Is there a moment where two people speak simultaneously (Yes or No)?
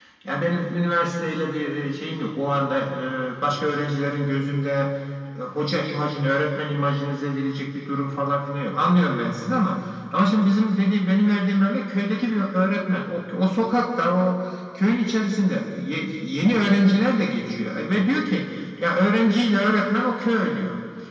No